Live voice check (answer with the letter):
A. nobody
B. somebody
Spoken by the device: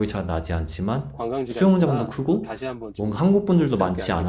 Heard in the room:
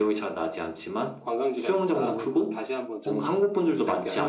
B